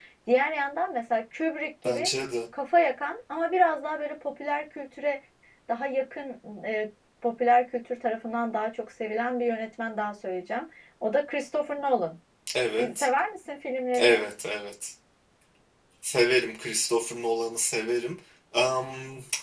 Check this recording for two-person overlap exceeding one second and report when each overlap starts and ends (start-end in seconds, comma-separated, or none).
none